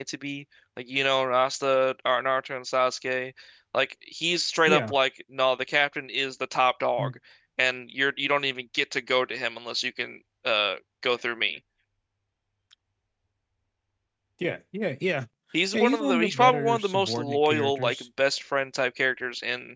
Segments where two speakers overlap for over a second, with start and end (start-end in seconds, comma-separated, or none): 15.7-18.0